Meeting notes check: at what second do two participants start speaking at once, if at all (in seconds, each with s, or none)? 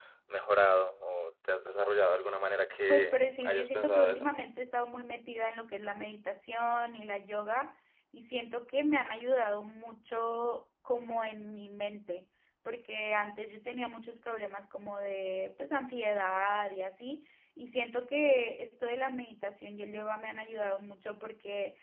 2.9 s